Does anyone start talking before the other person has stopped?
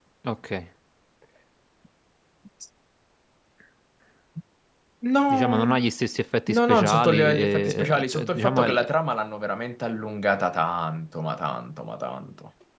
Yes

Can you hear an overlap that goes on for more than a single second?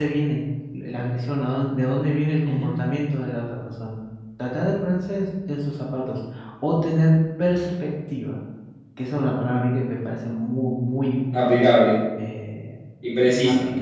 No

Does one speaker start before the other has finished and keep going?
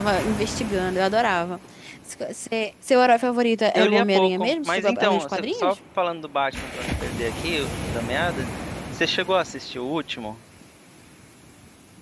Yes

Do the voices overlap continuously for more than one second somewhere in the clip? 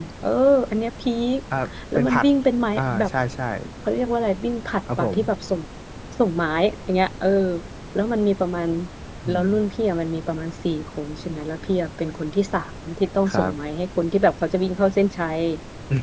No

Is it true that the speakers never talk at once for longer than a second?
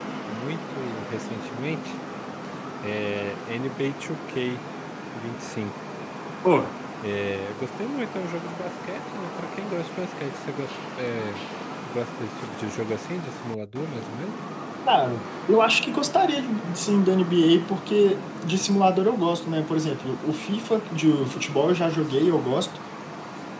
Yes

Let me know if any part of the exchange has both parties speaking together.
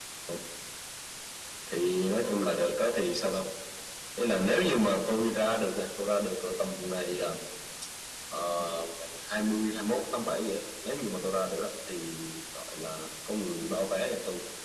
No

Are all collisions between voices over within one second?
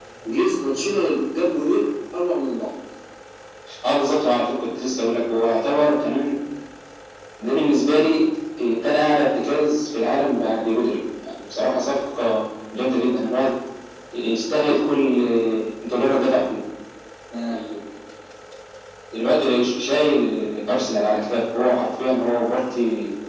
Yes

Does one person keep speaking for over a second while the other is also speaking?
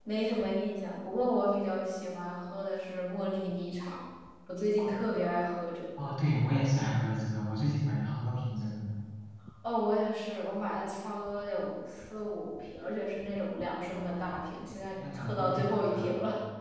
Yes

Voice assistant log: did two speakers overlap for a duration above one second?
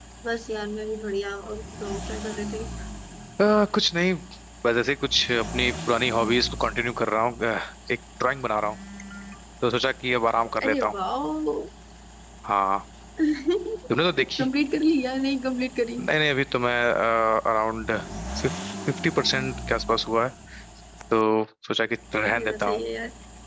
No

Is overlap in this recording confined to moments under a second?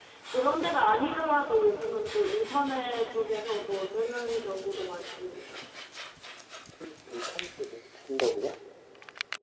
Yes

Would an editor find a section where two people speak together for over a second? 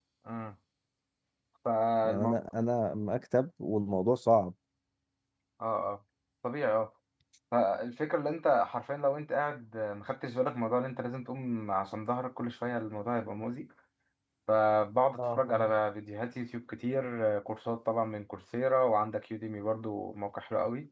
No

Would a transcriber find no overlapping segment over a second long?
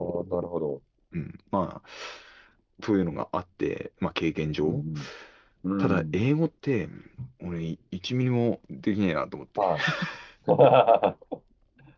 Yes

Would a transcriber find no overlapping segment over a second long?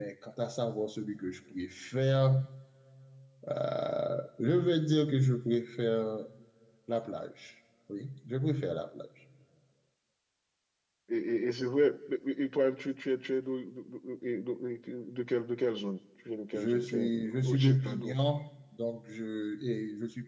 No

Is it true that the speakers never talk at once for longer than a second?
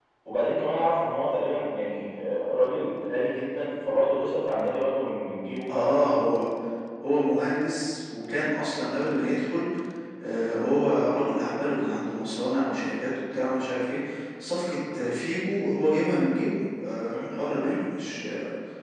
Yes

